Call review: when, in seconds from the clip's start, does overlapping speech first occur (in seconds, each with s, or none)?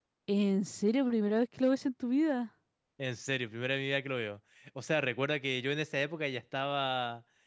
none